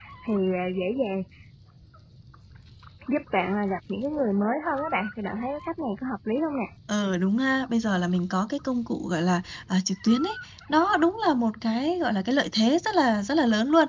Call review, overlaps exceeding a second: none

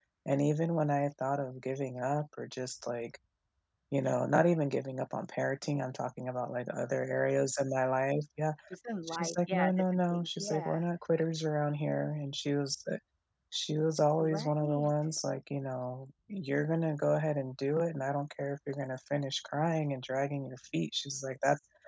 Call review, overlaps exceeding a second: present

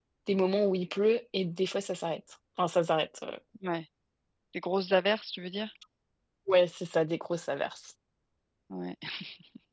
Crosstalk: none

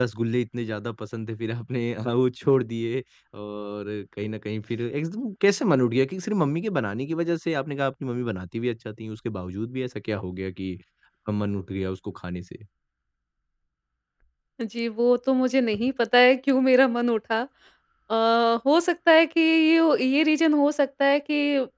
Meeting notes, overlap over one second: none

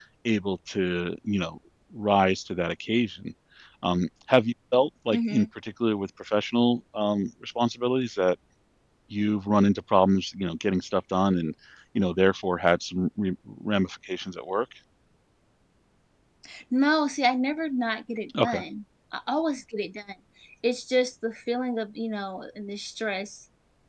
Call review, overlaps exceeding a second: none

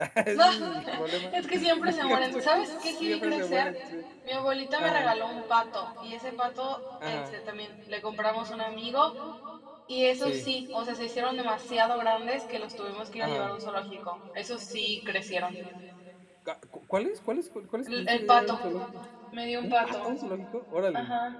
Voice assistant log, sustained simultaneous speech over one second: present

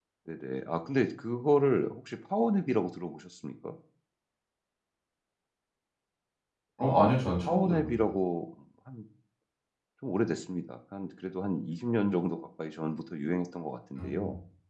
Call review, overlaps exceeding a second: present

